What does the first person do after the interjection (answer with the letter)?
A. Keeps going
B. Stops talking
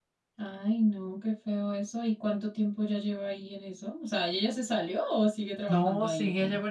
B